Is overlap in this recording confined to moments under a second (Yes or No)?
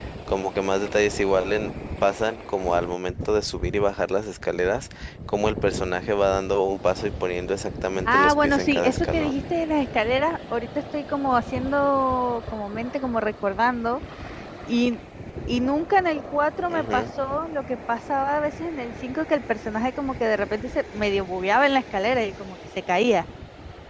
No